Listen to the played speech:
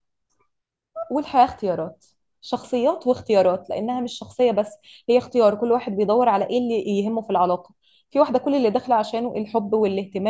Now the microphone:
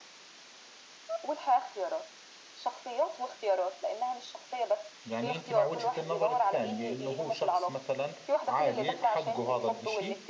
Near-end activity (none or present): present